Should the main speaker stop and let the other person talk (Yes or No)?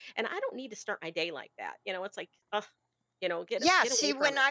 Yes